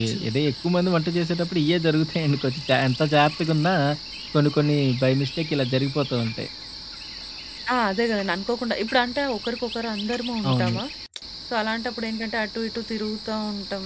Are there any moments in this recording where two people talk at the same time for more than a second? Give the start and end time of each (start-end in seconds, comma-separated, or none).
none